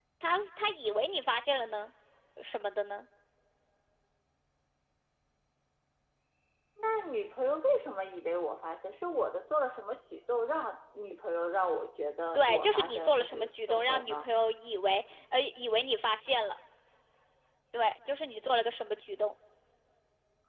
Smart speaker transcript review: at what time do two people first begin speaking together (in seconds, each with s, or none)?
12.3 s